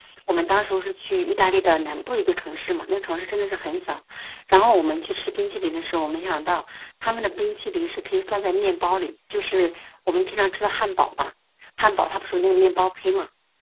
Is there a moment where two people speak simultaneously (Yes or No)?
No